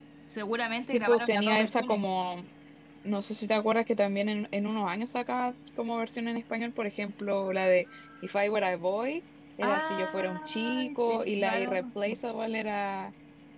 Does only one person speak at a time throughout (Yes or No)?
No